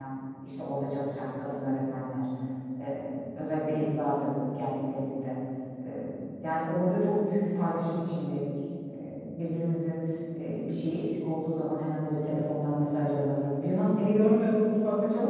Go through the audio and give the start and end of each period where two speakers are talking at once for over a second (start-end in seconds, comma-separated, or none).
none